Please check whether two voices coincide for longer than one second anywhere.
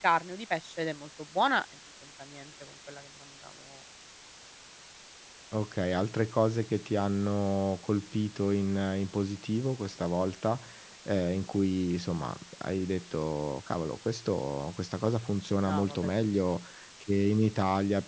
No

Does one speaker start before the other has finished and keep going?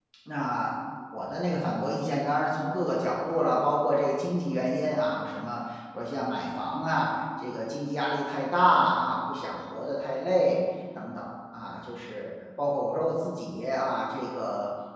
No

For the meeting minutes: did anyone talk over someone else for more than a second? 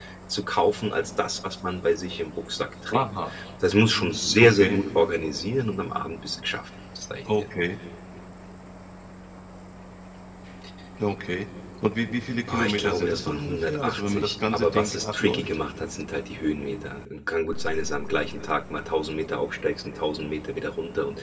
Yes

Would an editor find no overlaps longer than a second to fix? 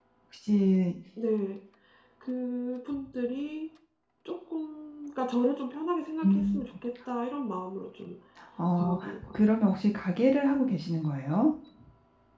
Yes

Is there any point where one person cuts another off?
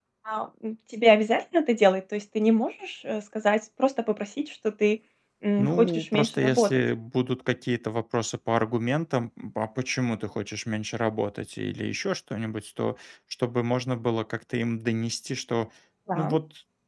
Yes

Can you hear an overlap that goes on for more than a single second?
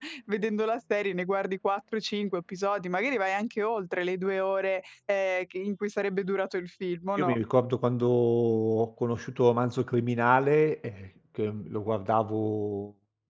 No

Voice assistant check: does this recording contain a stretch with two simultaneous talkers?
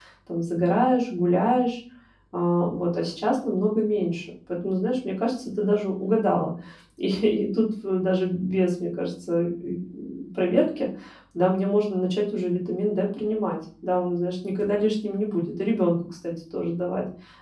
No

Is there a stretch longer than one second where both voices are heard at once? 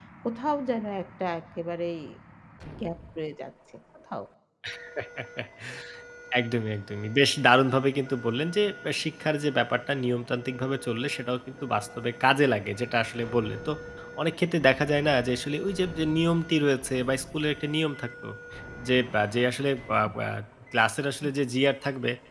No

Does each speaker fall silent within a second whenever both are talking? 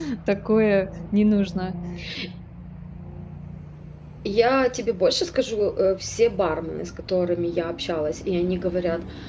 Yes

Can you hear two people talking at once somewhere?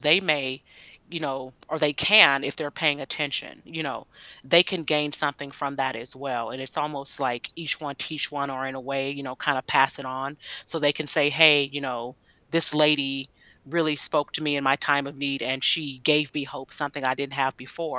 No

